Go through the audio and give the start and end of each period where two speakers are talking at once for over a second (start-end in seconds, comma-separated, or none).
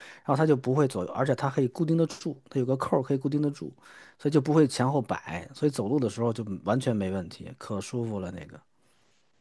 none